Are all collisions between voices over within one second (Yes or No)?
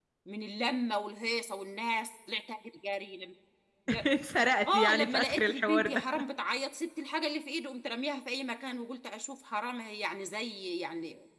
No